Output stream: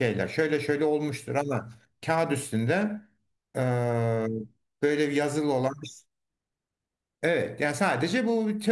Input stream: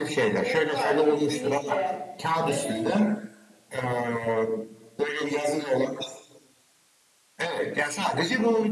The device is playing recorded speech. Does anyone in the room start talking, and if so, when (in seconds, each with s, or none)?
0.4 s